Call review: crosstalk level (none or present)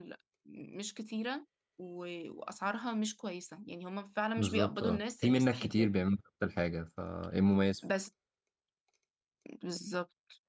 present